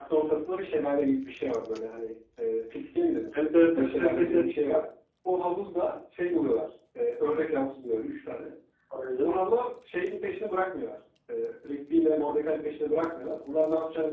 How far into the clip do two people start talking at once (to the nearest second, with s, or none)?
3 s